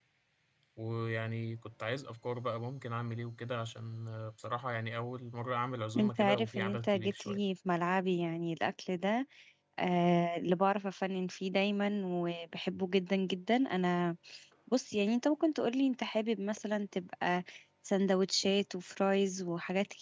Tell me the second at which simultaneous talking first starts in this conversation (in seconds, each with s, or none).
6.0 s